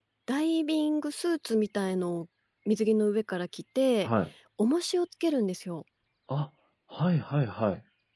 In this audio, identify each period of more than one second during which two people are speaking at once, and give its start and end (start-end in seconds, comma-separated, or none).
none